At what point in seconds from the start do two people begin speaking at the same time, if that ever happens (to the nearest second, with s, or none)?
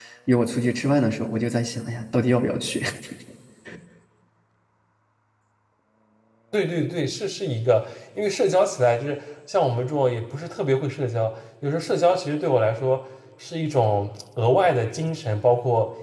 none